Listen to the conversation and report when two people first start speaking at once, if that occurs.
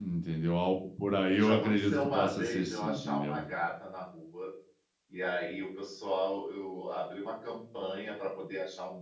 1.3 s

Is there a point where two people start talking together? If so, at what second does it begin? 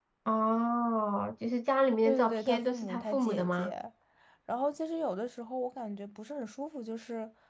2.0 s

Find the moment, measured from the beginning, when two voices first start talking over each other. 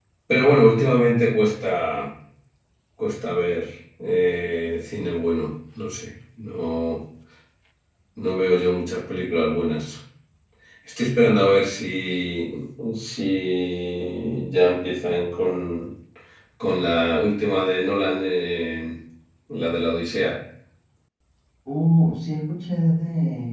none

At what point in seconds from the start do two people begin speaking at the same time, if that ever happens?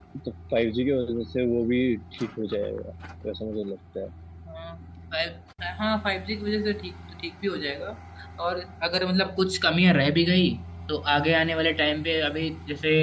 none

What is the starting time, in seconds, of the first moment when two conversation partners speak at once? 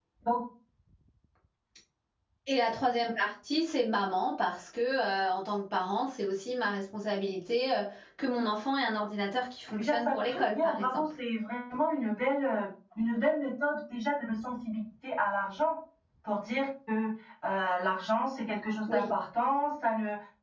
9.8 s

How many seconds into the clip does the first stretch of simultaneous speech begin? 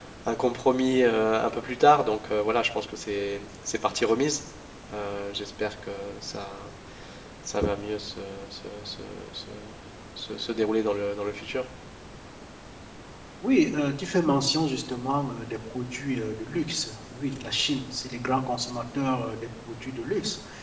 none

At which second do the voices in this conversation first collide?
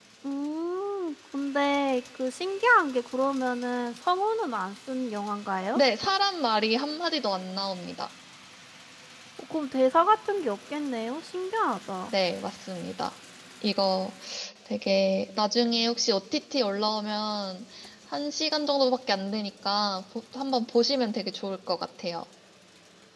none

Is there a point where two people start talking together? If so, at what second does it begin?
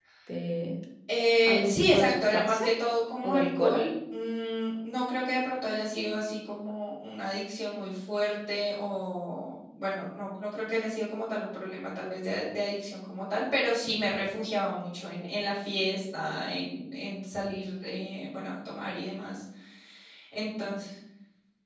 1.5 s

